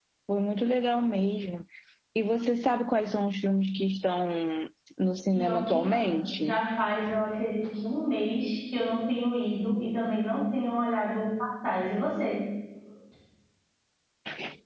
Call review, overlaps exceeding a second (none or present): present